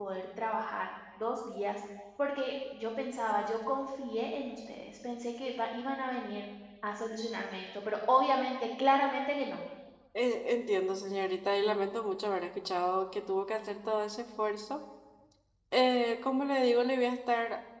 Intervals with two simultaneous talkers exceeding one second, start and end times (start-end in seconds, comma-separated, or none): none